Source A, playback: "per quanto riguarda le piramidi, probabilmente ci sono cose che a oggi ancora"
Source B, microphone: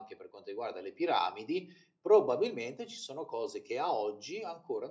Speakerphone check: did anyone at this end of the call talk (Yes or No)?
No